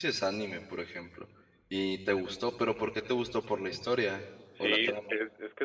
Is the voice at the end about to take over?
Yes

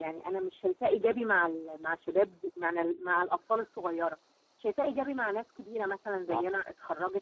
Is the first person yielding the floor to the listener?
No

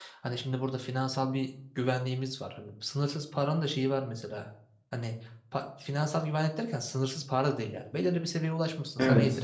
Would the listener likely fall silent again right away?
Yes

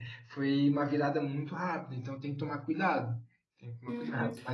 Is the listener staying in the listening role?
No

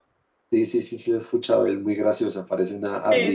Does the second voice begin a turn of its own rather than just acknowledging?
Yes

